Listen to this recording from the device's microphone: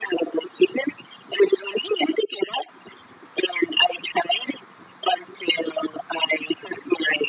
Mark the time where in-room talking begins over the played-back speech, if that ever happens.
none

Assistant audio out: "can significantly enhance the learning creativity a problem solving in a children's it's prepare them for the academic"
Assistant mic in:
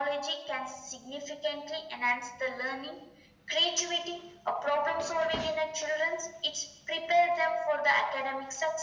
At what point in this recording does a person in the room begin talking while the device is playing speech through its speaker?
none

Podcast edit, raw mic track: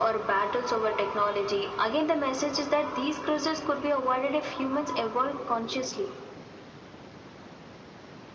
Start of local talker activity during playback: none

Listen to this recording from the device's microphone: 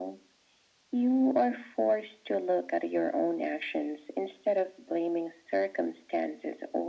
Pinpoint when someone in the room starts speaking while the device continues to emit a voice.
none

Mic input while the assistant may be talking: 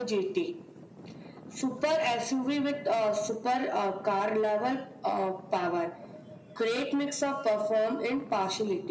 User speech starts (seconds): none

